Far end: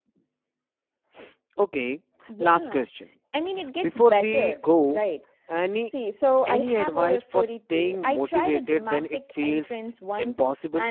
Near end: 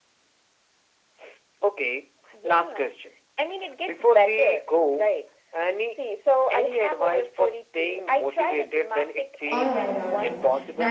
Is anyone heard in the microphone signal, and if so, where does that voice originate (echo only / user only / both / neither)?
both